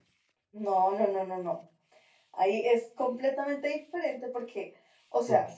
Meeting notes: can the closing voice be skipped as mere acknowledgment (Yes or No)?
Yes